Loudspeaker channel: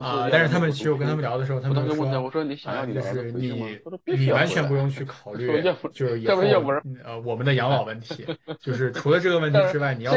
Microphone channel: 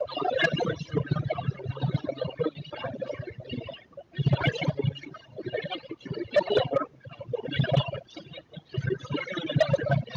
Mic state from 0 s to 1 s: echo only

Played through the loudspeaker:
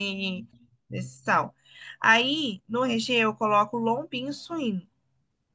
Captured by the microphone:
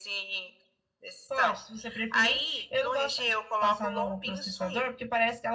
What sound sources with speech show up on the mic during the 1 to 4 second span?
both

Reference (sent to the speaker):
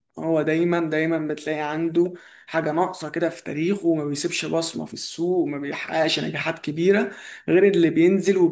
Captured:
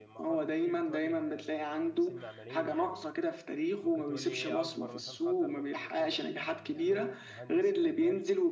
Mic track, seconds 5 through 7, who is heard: both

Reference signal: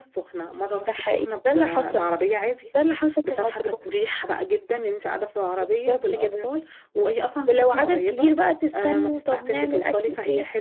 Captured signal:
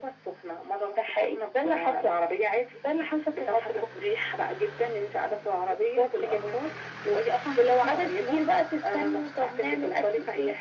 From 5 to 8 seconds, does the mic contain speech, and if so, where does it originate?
echo only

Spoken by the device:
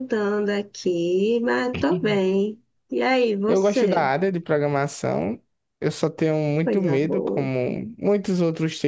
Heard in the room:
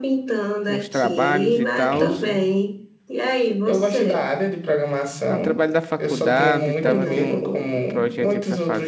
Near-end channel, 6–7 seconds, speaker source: both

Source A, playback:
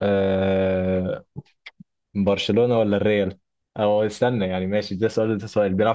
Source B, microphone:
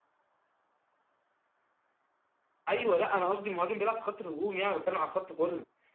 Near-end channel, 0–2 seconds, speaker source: neither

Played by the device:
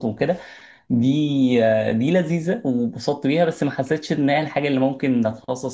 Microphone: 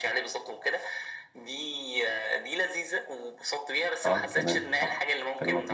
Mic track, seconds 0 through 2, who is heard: echo only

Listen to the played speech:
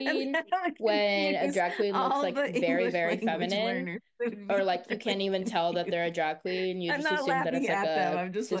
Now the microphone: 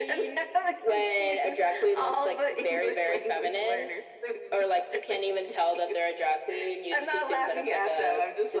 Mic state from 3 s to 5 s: echo only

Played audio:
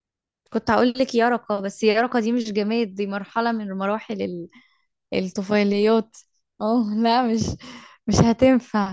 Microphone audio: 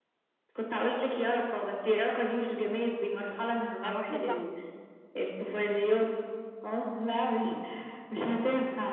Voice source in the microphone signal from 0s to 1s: echo only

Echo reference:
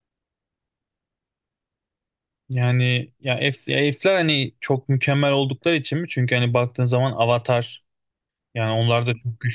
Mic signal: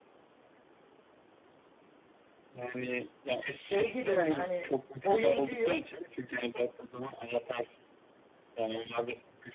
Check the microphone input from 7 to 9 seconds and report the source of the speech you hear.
echo only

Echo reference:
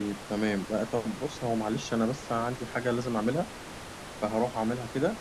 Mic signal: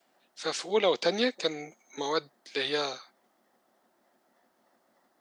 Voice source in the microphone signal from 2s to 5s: user only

